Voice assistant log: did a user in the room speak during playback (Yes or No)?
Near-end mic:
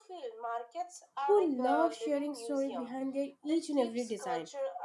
Yes